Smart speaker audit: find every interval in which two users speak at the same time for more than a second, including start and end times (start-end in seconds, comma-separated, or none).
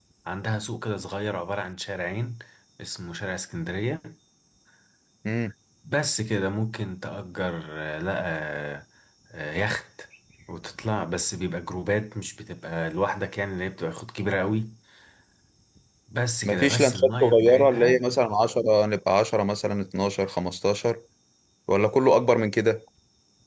16.4-18.0